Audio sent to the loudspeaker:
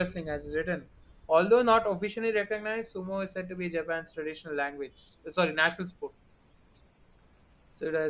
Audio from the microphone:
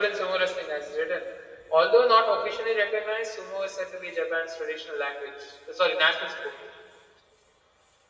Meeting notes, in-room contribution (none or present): none